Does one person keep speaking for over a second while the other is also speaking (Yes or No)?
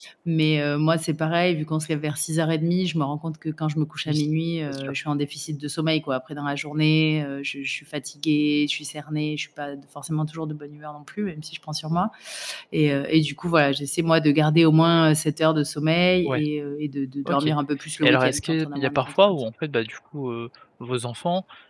Yes